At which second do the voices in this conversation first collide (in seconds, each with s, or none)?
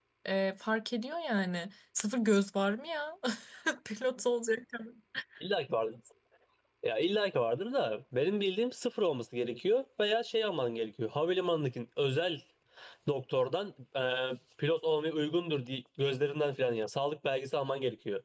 none